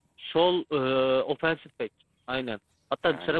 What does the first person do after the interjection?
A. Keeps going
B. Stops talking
A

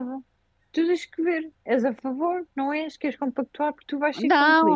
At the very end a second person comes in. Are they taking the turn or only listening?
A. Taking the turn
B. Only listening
A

